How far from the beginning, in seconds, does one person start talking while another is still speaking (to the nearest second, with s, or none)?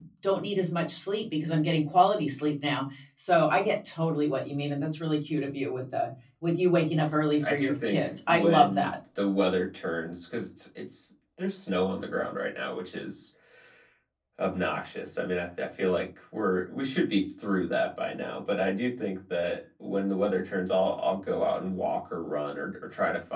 7 s